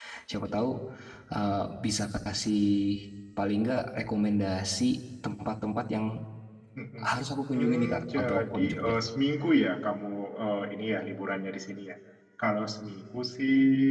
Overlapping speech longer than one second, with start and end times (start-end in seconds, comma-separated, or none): 7.5-8.9